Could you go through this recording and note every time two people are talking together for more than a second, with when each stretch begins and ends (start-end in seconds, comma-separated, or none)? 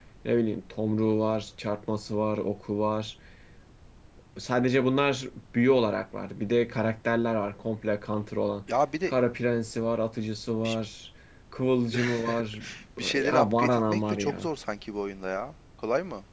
13.1-14.5